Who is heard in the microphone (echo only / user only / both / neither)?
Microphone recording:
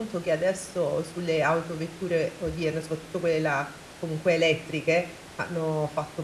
user only